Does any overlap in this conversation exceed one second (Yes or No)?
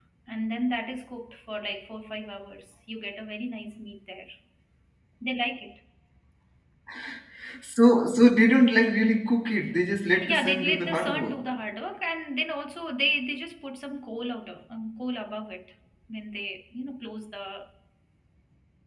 Yes